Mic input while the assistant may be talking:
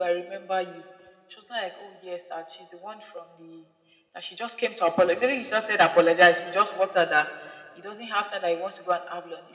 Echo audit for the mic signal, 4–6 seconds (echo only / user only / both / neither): echo only